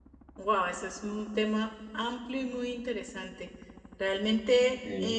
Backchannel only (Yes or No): Yes